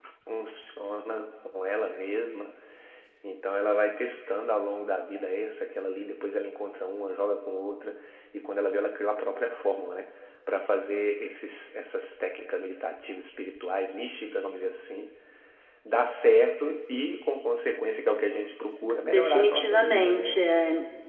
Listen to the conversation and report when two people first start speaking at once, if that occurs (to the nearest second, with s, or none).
19 s